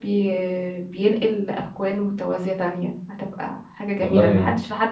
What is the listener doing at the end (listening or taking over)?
listening